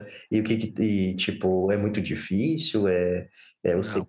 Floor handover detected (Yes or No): Yes